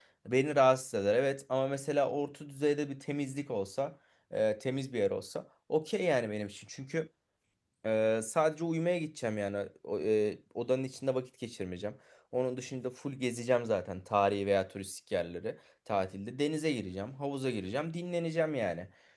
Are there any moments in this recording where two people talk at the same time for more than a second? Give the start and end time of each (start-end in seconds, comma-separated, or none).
none